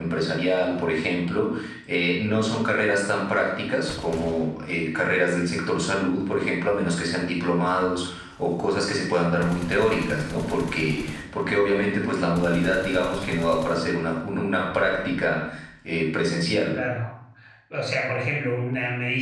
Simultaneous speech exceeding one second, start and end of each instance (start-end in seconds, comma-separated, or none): none